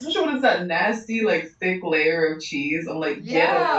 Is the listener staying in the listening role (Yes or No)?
No